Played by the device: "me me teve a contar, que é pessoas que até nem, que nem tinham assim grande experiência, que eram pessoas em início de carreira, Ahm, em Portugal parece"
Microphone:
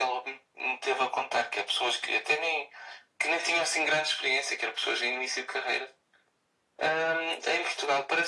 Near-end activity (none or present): none